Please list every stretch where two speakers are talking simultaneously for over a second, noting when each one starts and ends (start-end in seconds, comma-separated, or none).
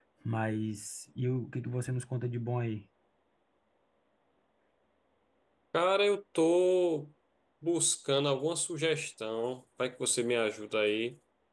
none